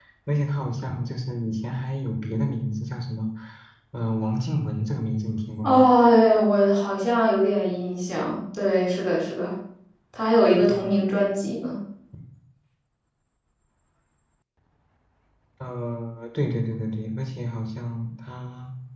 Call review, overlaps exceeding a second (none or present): none